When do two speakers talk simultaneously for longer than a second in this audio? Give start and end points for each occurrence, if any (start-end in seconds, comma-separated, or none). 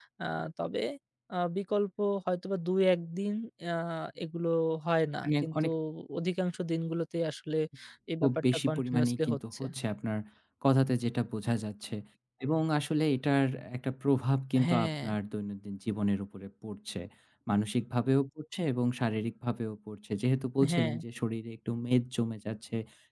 8.2-9.6